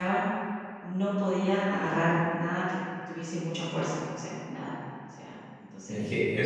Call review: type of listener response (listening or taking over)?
taking over